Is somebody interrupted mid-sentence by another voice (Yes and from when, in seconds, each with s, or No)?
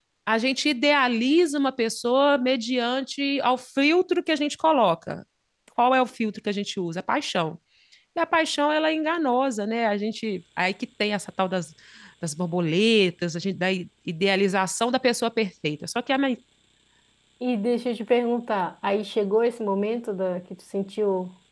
No